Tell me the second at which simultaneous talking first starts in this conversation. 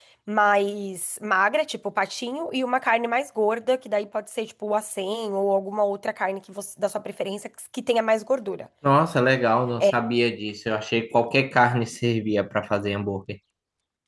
none

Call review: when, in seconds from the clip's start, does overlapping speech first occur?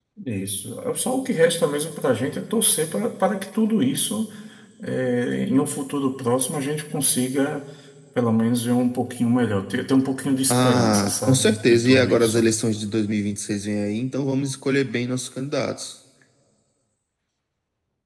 10 s

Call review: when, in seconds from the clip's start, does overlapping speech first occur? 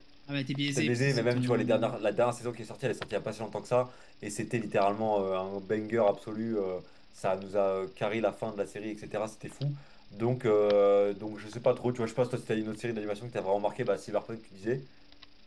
1 s

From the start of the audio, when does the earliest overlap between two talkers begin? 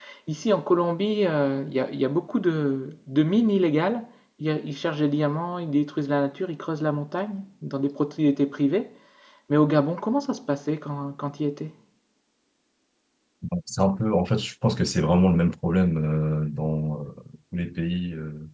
none

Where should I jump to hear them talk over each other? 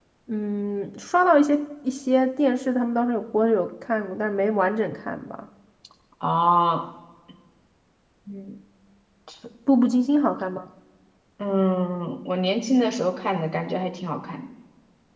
none

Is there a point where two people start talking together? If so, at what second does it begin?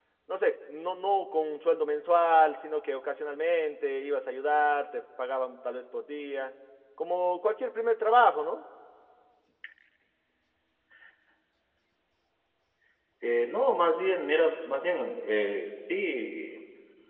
none

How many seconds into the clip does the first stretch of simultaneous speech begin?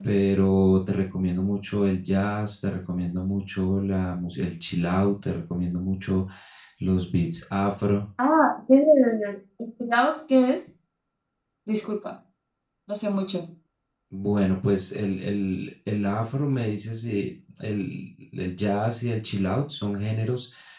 none

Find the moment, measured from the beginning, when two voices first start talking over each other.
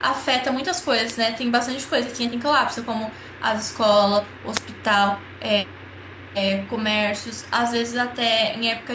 none

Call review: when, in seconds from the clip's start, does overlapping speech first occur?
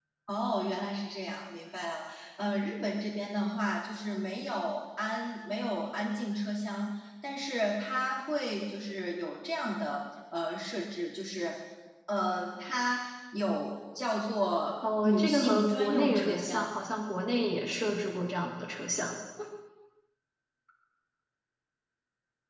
15 s

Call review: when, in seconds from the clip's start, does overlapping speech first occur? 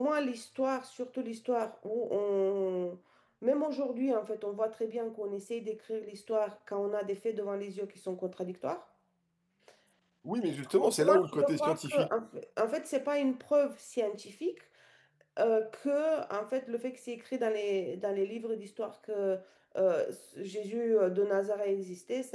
11 s

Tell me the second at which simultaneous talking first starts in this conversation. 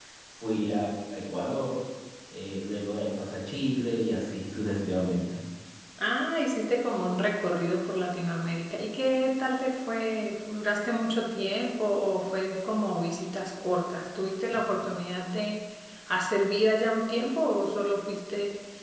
none

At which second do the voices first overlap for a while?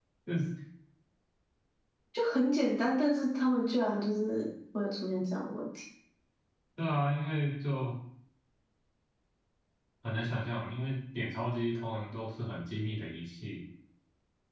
none

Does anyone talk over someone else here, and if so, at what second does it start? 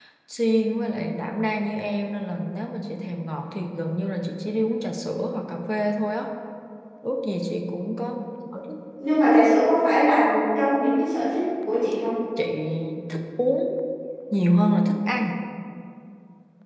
none

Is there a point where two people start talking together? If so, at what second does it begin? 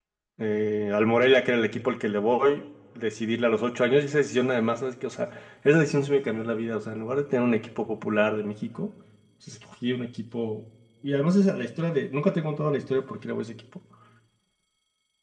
none

